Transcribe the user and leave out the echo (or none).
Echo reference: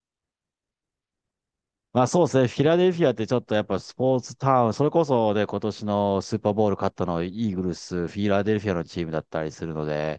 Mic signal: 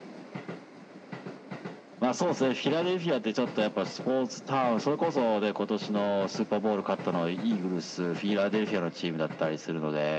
none